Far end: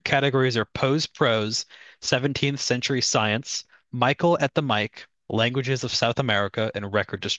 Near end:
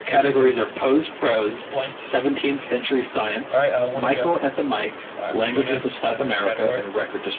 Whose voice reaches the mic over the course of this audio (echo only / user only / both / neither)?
both